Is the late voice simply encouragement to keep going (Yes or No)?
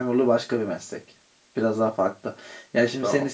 Yes